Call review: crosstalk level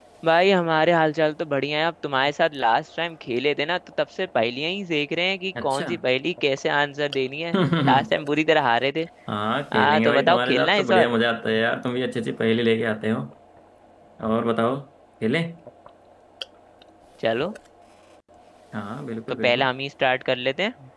present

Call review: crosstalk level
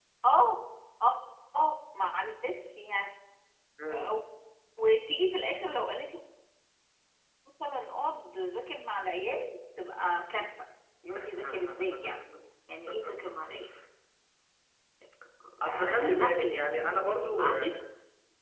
present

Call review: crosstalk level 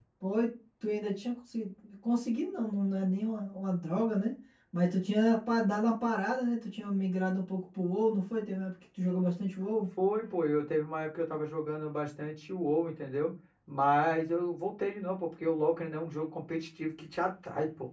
none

